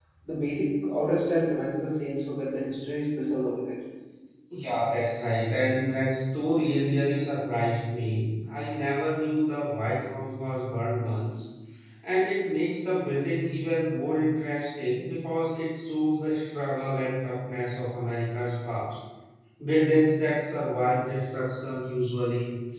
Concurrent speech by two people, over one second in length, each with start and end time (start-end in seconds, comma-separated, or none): none